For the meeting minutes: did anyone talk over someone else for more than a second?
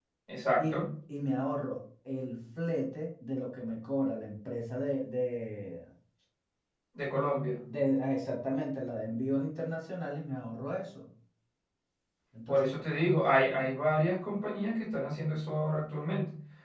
No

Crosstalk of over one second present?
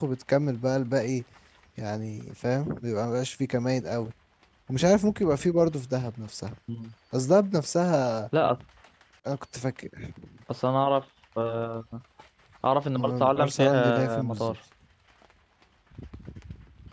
Yes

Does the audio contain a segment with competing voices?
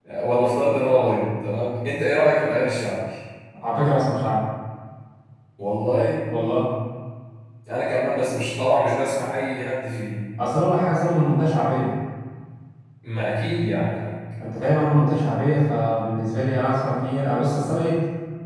No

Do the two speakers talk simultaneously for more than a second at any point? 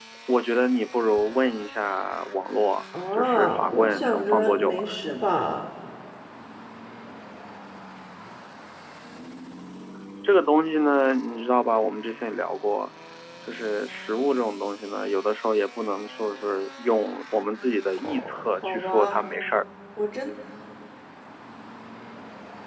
Yes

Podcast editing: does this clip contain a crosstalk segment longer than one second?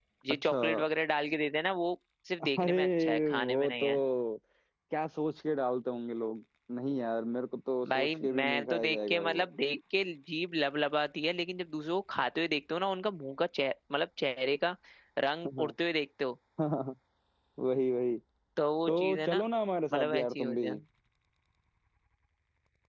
Yes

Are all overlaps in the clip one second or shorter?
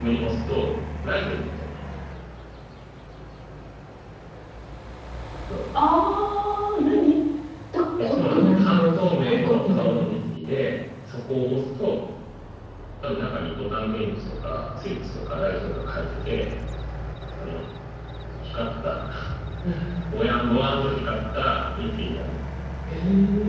No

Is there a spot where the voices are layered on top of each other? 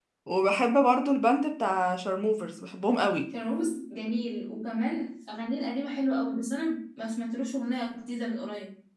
No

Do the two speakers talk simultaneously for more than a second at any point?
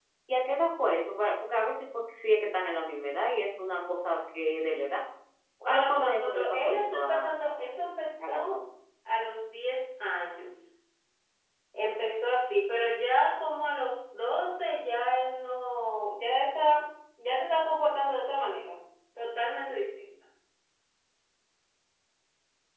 Yes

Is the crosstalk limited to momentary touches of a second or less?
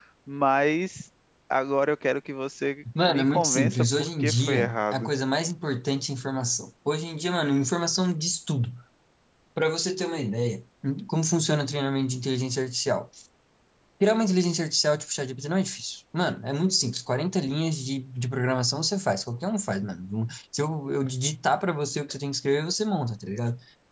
No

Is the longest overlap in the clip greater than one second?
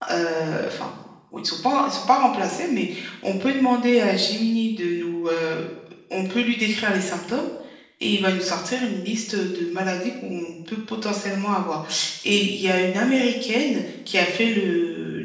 No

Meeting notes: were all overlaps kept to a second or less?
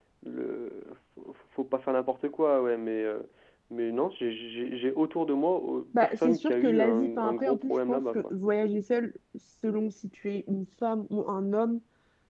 No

